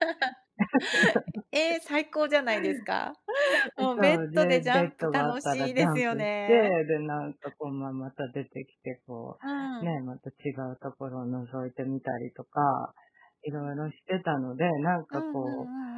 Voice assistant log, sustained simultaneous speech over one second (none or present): present